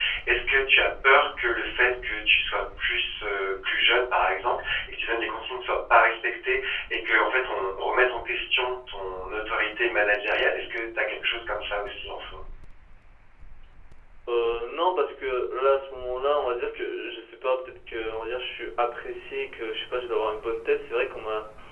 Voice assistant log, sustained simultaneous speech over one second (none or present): none